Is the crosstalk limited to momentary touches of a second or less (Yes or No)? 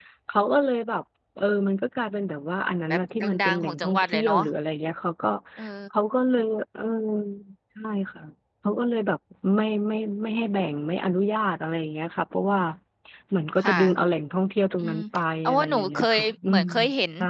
No